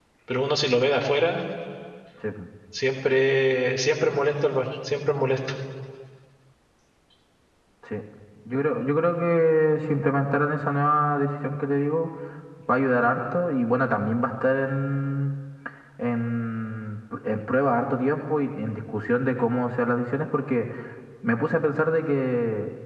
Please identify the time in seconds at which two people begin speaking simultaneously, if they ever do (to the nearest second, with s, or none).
none